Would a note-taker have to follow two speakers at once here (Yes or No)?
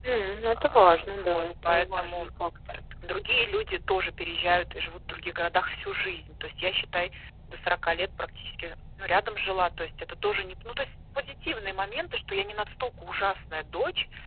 Yes